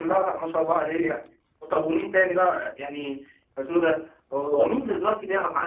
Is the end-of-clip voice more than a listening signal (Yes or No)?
No